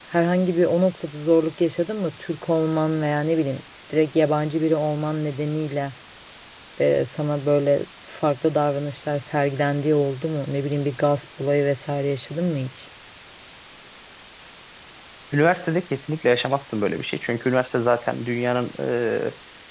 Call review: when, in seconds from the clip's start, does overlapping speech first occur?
none

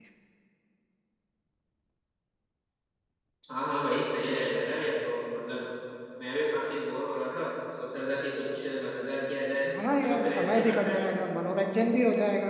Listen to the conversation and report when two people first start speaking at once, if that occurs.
10 s

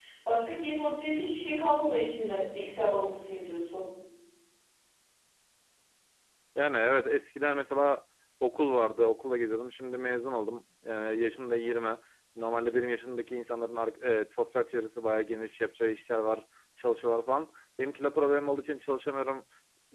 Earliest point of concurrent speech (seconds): none

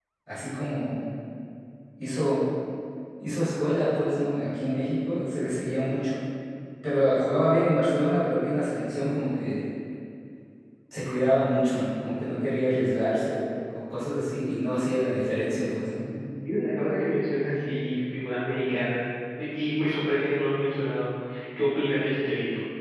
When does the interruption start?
none

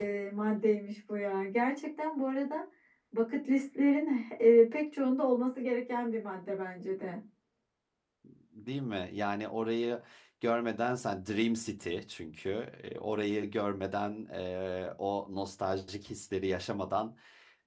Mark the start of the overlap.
none

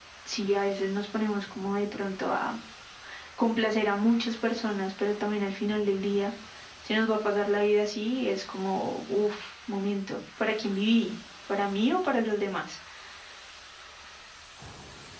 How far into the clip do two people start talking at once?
none

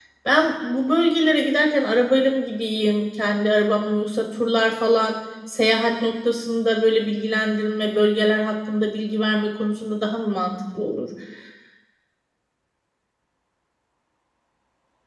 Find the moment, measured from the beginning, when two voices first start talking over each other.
none

